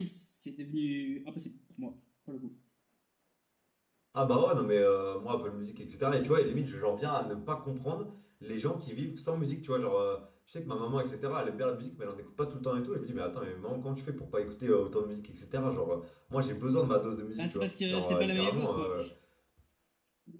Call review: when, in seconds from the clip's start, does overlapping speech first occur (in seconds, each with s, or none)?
17.4 s